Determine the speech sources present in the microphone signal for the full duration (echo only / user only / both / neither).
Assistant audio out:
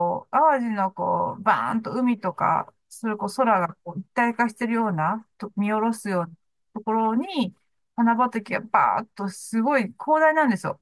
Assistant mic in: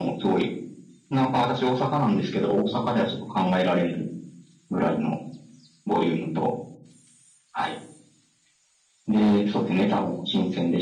user only